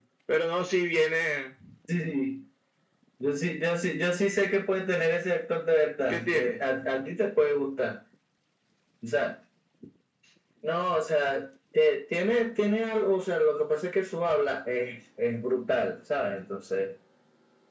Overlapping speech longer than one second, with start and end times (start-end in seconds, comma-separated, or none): none